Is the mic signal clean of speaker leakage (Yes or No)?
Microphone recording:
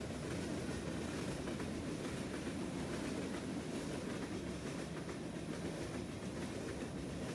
Yes